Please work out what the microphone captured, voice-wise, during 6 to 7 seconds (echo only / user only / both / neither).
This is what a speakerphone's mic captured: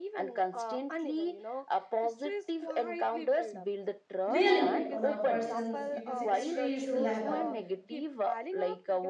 both